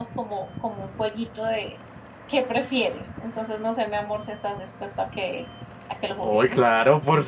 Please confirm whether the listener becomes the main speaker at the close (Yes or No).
Yes